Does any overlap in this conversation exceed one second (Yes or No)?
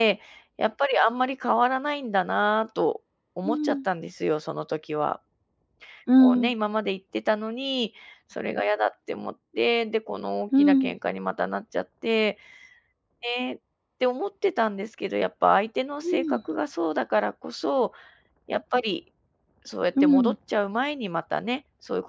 No